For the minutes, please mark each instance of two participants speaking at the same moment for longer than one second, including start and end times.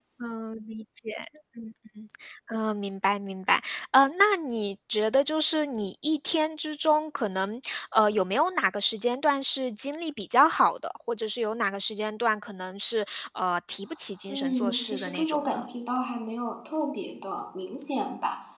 14.3-15.6

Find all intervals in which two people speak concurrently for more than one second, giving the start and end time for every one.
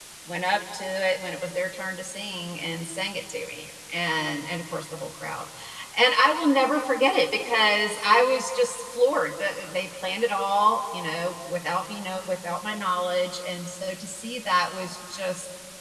none

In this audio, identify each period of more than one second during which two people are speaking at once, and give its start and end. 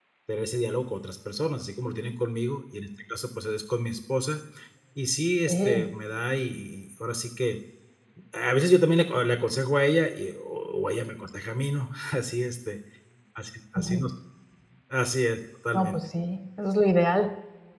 none

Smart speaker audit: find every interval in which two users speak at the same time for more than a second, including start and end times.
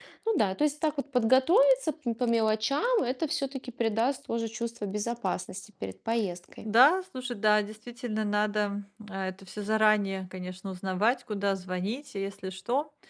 none

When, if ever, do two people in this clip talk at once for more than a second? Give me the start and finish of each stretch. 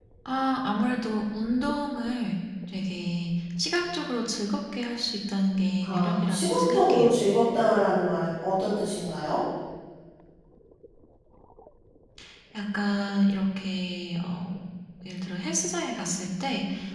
5.8-7.1

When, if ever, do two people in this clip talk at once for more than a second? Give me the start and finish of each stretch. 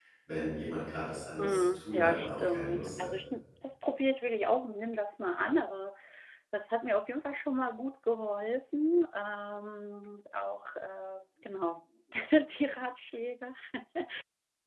1.4-2.9

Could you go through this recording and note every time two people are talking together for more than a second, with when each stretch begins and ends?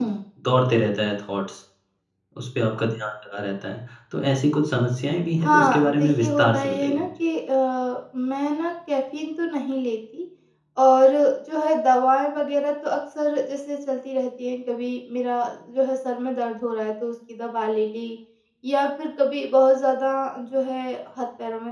5.4-7.1

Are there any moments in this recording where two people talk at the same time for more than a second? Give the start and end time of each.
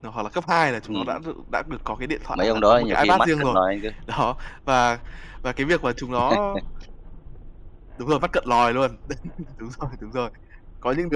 2.3-3.6

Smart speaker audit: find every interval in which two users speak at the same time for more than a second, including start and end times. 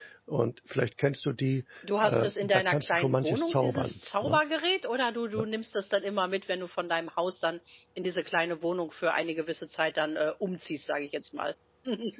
2.0-4.4

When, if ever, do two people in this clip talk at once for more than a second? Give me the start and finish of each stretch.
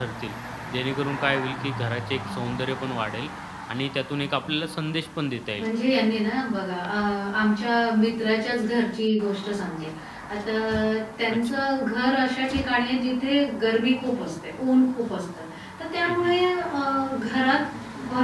none

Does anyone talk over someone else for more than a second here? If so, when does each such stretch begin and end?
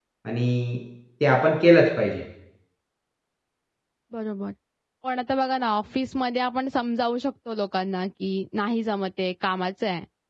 none

